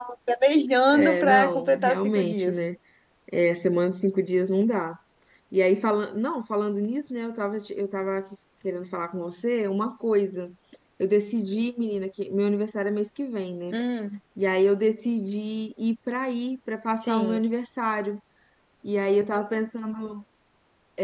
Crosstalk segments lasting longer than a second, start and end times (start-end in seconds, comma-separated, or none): 0.9-2.7